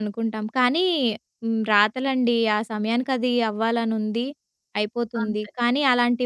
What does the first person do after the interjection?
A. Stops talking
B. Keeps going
B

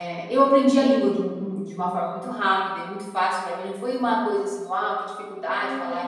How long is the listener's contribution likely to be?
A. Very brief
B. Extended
B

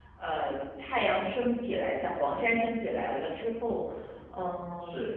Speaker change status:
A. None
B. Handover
A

